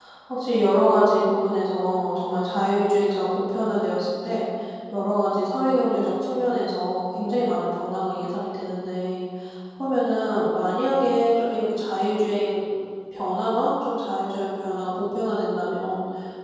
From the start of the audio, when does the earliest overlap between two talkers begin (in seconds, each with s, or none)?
none